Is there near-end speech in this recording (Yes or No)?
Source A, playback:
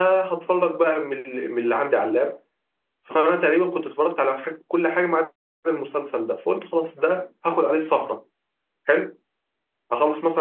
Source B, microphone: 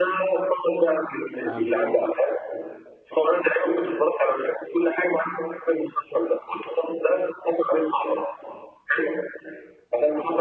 Yes